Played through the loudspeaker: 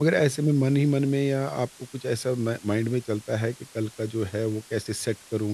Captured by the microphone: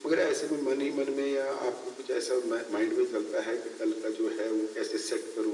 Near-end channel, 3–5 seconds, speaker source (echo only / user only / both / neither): echo only